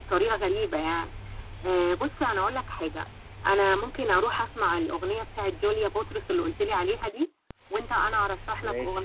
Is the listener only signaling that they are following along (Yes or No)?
Yes